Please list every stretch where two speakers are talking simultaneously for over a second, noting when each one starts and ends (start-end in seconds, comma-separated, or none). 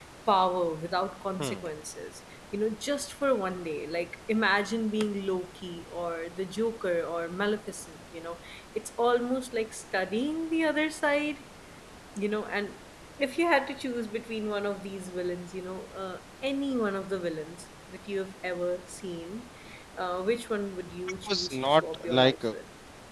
21.3-22.5